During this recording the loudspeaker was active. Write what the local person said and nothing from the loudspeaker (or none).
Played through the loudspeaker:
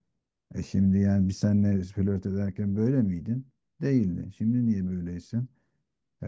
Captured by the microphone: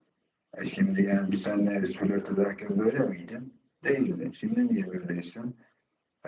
none